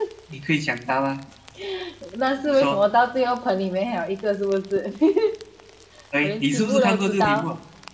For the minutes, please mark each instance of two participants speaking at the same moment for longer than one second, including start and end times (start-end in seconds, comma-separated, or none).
6.2-7.4